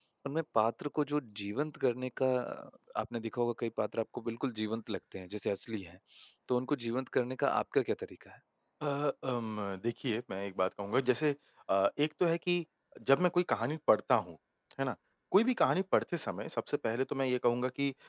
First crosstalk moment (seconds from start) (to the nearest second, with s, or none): none